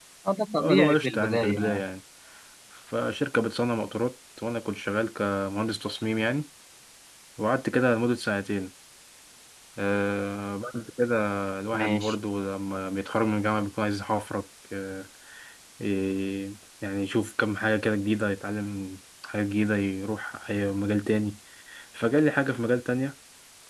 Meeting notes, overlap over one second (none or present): present